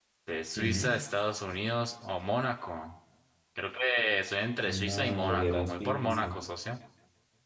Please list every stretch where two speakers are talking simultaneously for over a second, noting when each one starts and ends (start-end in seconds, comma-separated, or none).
4.7-6.3